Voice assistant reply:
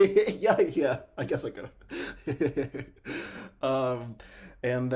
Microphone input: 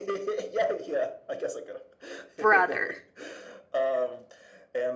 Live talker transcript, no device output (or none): brother